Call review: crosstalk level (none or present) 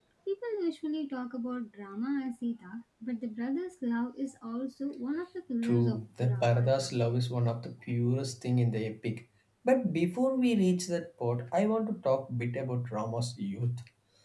present